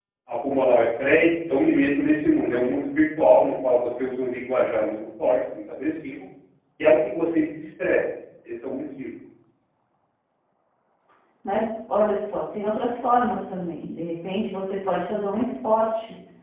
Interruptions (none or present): none